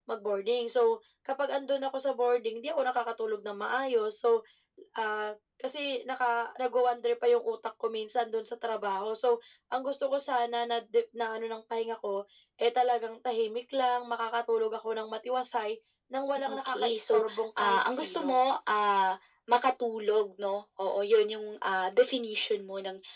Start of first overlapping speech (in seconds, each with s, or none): 16.5 s